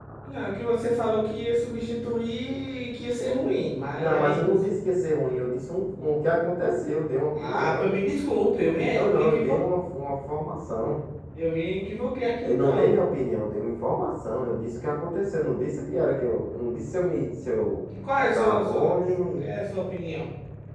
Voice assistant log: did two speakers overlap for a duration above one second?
Yes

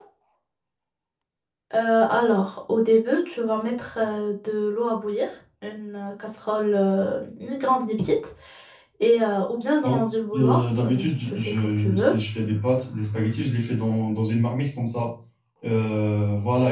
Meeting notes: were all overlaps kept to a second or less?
No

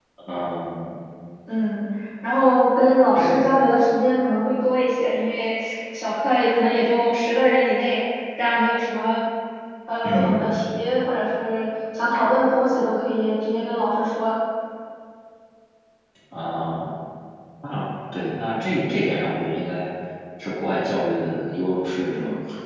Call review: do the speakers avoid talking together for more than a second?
Yes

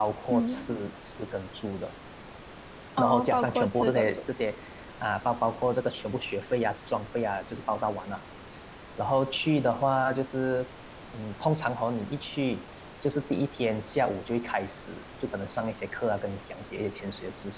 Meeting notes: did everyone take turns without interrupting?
No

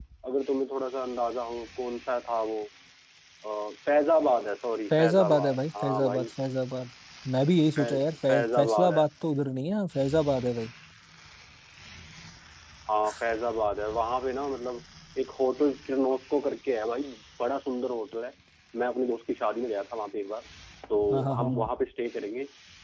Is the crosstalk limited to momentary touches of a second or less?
No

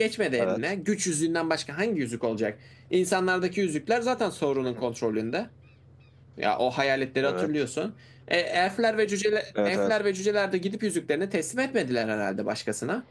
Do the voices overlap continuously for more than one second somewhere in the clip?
No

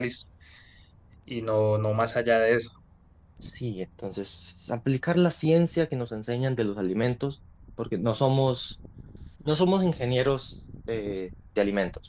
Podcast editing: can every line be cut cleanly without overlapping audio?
Yes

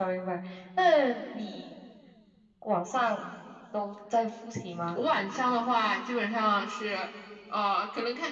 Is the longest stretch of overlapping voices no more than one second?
Yes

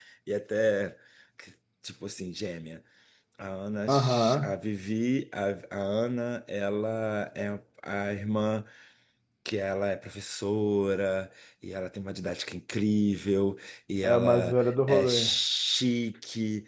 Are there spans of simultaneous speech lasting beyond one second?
Yes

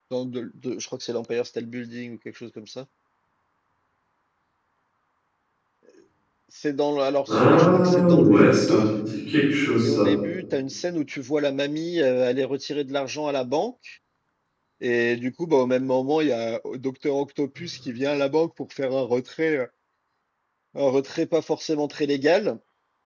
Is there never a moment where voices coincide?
No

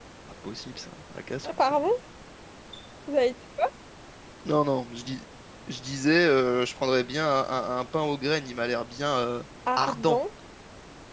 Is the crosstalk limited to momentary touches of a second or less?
Yes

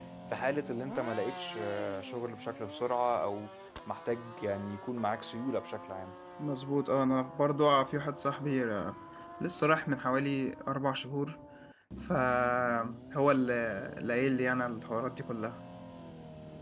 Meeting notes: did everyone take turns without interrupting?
Yes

